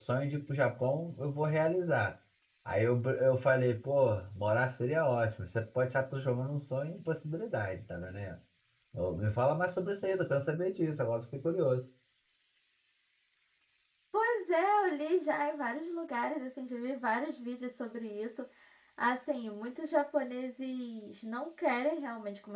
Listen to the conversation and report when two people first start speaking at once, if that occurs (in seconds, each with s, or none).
none